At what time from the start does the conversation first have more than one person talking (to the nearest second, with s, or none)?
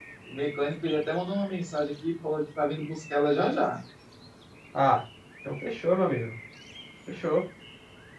none